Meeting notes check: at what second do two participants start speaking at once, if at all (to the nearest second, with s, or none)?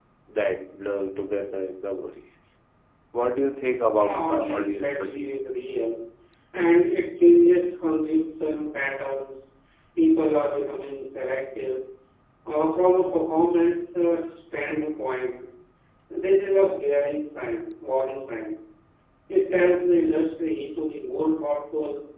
4 s